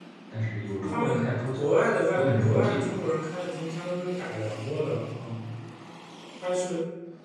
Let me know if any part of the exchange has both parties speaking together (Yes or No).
Yes